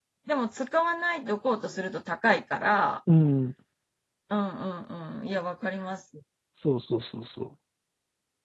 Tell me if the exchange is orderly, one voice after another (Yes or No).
Yes